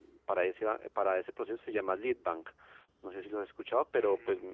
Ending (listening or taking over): taking over